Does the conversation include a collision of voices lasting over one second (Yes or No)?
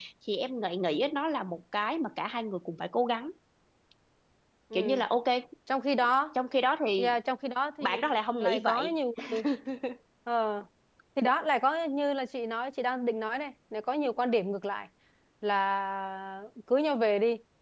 No